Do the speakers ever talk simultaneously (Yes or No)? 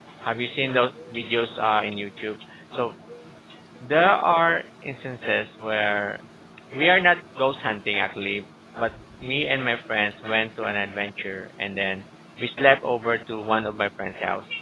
No